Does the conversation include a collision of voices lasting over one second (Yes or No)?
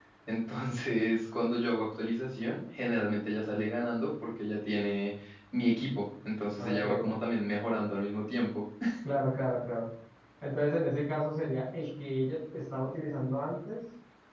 No